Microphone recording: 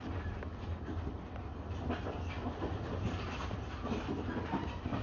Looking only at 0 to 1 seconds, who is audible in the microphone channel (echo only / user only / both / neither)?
neither